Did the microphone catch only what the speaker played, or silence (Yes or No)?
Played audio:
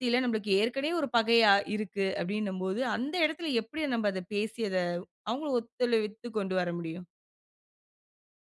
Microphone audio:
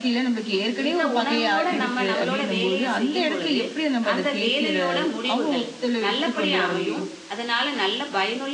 No